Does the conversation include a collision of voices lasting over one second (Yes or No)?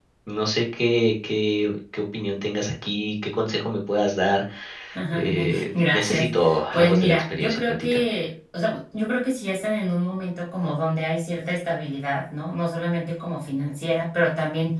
Yes